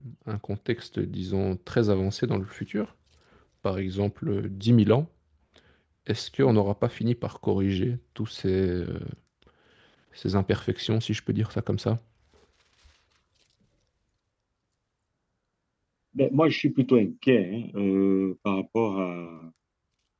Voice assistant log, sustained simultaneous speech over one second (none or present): none